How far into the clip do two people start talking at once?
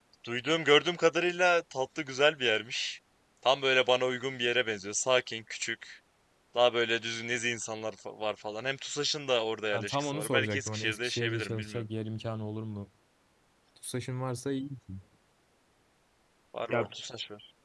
9.7 s

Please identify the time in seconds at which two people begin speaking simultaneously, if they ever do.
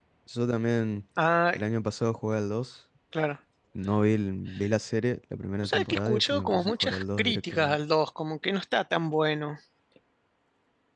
5.6 s

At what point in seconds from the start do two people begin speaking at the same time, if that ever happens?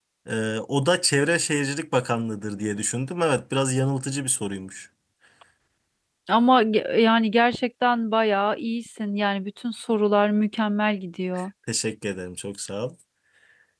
none

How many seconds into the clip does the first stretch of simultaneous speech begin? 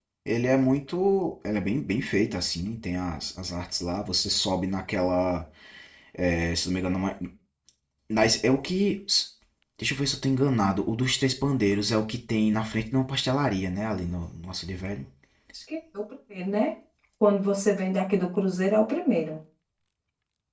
none

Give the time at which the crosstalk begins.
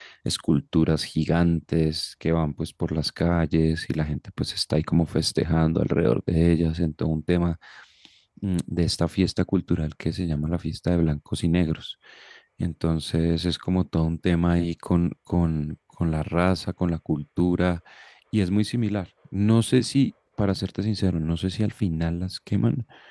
none

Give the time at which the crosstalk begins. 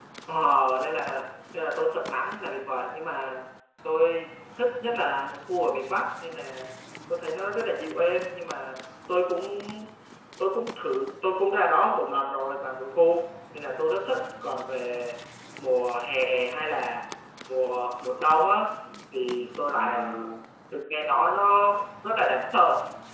none

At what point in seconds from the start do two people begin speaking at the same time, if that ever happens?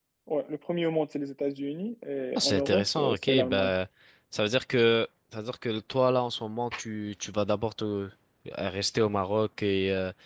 2.4 s

